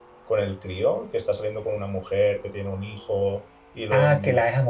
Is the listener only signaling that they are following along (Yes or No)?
No